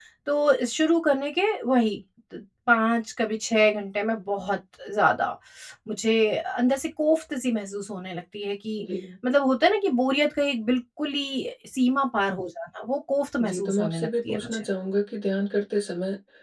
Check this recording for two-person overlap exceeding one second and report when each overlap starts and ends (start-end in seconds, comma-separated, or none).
13.4-14.6